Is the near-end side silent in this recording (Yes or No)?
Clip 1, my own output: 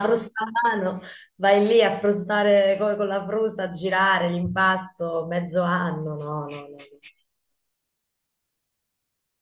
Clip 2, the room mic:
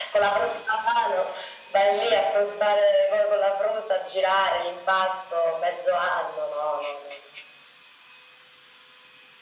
Yes